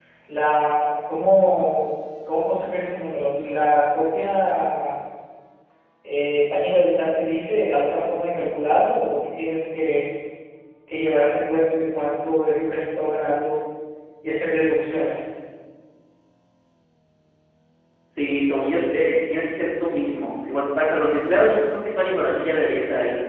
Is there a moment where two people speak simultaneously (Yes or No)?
No